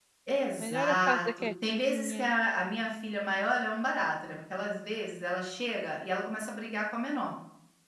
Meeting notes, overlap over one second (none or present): present